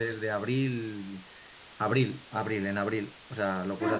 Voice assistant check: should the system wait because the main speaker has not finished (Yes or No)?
Yes